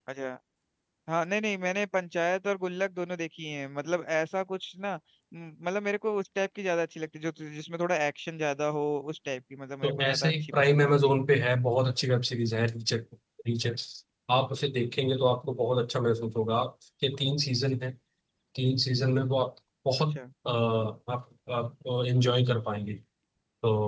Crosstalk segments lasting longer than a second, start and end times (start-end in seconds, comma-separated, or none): 9.8-11.2